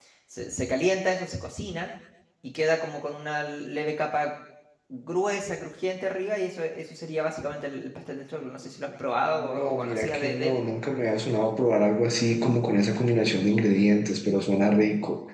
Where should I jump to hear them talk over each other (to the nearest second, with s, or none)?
9 s